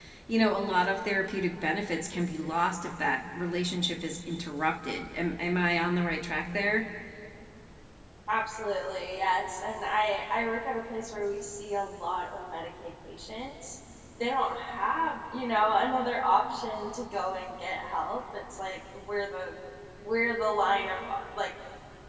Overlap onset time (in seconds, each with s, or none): none